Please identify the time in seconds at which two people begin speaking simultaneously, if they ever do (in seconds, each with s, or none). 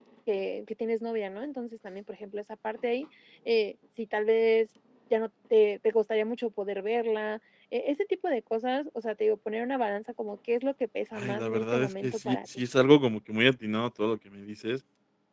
11.2 s